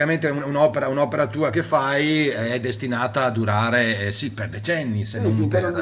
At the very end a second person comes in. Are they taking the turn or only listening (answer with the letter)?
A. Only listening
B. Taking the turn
B